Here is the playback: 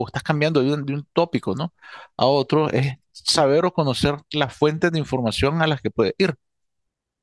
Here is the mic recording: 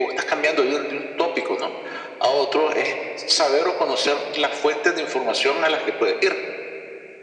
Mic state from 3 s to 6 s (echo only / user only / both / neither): echo only